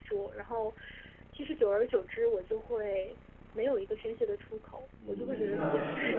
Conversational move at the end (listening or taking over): taking over